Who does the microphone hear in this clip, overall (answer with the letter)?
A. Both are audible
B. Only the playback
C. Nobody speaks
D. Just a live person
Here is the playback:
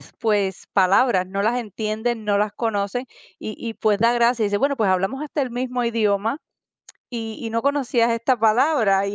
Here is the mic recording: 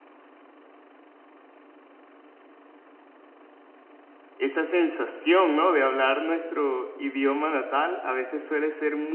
D